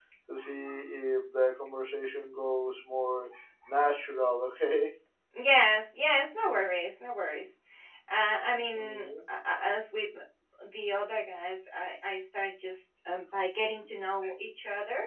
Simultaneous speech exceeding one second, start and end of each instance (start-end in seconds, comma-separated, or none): none